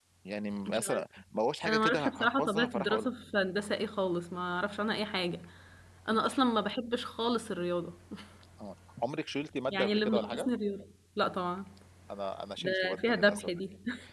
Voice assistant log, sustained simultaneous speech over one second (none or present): present